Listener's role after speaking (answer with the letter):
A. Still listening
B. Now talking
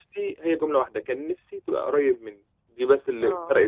A